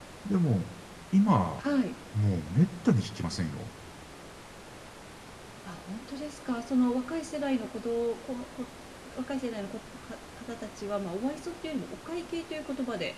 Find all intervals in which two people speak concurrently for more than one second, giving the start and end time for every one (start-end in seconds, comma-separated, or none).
none